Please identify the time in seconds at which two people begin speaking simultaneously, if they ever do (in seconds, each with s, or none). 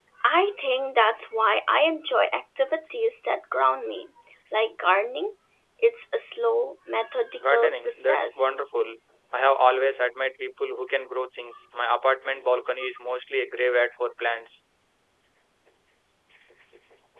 7.4 s